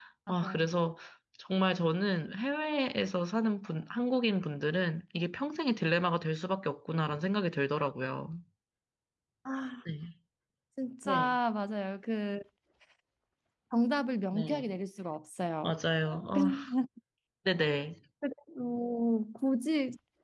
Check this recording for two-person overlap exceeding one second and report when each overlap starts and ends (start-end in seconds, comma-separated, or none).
none